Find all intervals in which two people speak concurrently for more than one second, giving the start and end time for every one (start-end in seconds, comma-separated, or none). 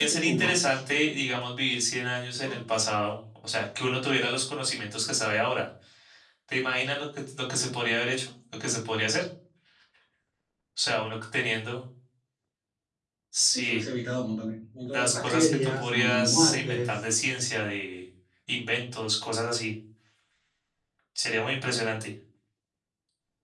14.9-17.0